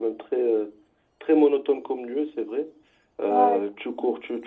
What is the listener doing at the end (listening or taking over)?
listening